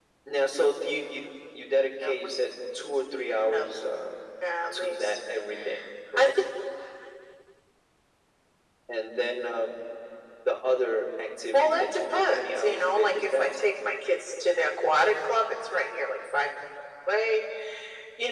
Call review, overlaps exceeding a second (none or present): present